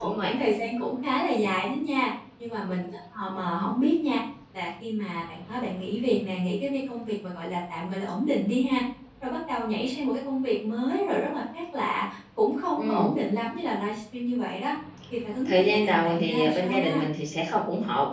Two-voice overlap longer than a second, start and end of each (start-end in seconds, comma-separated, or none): 15.4-17.0